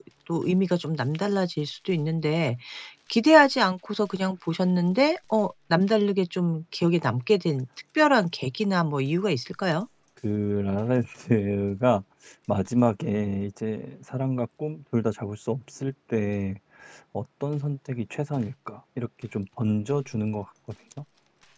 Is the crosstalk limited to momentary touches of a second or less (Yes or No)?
Yes